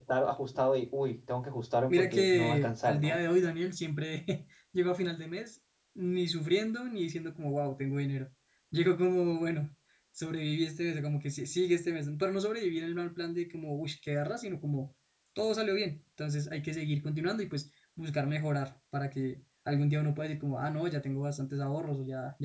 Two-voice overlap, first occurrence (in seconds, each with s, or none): 1.9 s